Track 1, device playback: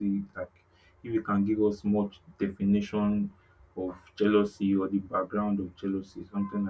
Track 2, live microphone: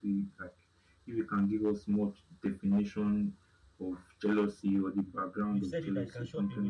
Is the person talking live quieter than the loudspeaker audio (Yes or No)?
Yes